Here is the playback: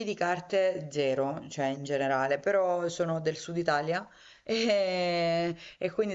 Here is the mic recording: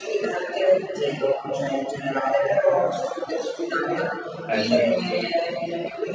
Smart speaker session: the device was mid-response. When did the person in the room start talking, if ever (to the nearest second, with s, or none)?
4 s